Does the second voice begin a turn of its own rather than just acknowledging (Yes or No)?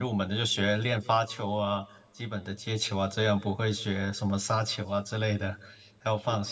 No